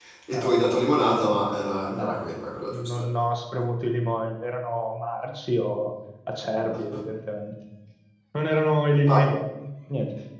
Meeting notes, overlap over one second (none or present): none